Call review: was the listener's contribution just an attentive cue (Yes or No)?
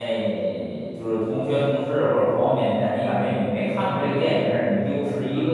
No